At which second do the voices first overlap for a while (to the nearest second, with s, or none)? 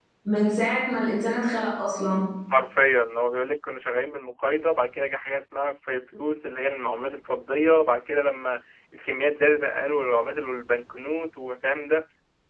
none